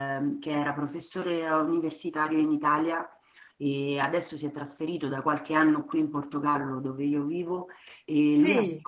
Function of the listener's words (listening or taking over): listening